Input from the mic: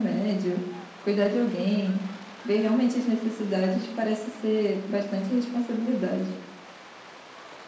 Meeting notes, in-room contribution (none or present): none